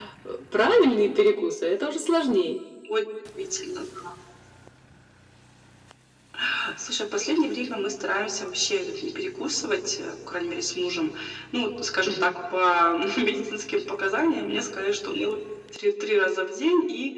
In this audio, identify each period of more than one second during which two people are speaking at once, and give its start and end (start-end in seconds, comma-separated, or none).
none